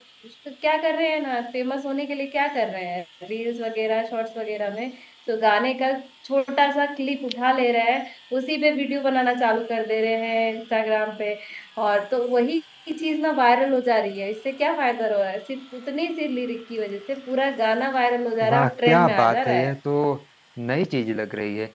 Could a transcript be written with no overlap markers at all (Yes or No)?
No